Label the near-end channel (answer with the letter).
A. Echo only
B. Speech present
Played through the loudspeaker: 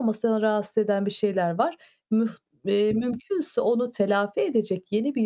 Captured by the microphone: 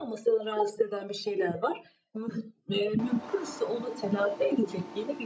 A